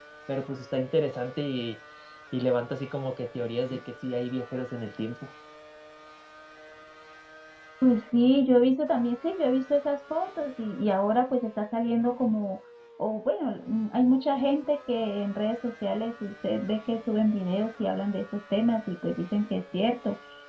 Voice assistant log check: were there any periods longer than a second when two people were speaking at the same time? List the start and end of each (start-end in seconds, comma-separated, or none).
none